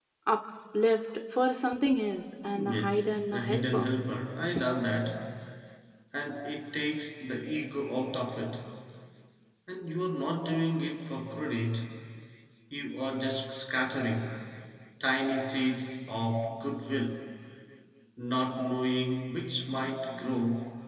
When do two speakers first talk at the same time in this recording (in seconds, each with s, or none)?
2.5 s